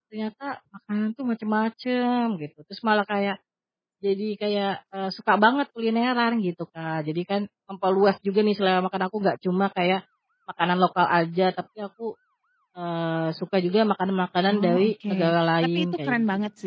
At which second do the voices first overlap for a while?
14 s

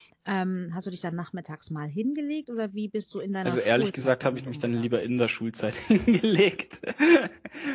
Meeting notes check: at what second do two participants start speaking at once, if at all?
3 s

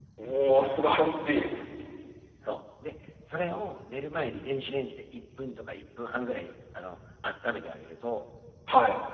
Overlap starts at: none

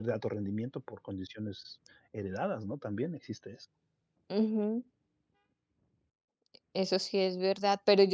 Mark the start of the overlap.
none

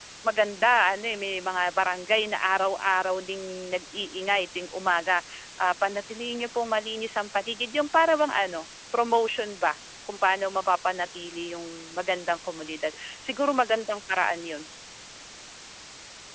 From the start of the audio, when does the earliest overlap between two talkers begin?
none

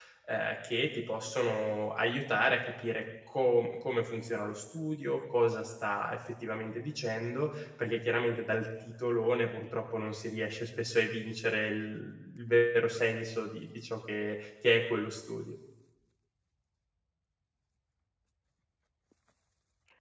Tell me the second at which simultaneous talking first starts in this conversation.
none

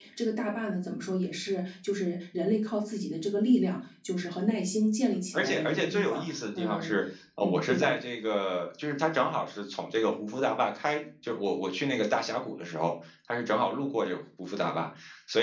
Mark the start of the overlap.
5 s

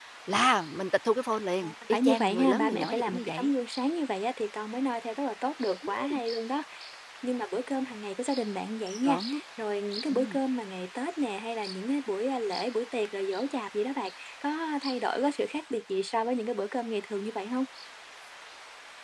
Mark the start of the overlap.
2 s

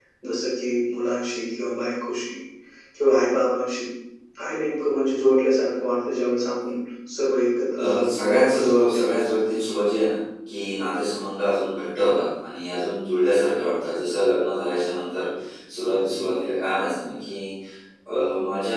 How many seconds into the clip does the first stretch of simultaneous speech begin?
8 s

